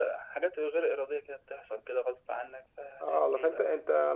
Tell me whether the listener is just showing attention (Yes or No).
No